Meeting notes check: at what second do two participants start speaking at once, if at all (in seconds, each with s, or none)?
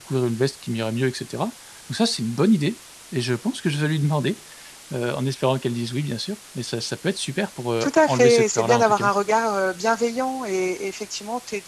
7.8 s